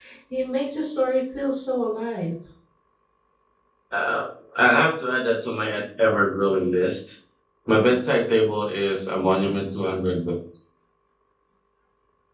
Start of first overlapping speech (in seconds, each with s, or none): none